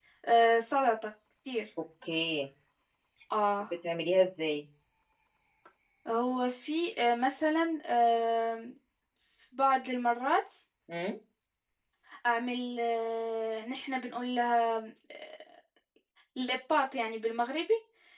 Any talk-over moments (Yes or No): No